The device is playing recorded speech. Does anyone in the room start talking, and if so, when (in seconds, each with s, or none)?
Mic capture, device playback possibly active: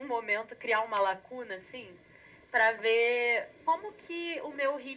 none